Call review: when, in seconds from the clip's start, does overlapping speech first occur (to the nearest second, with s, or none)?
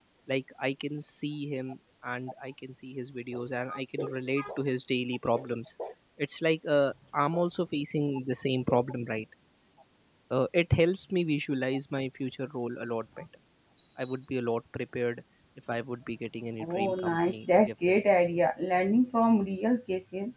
17 s